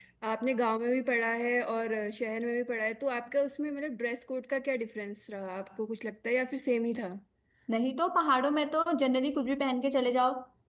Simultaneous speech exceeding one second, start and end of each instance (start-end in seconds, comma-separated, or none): none